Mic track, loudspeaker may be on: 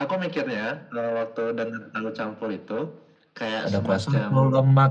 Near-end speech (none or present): present